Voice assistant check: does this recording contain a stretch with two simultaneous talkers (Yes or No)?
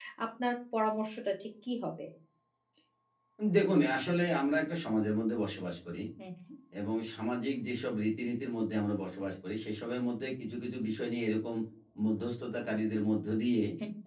No